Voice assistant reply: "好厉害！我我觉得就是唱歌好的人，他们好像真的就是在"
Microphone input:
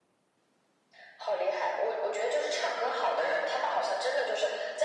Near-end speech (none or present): none